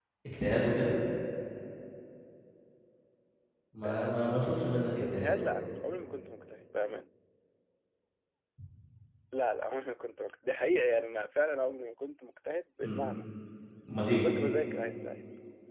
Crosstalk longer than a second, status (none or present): none